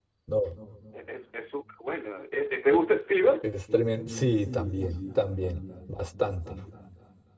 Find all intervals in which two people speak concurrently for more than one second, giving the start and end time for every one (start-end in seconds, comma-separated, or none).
none